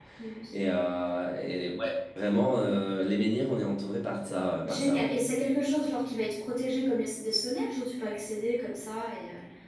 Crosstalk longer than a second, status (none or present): none